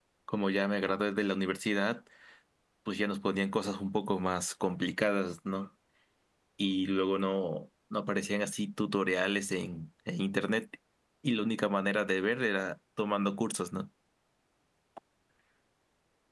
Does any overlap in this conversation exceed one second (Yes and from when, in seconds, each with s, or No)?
No